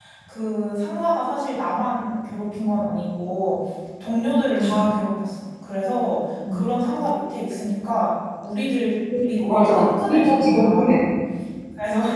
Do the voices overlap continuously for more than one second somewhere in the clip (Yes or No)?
Yes